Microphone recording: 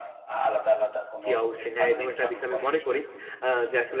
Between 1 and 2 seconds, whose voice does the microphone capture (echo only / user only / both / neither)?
both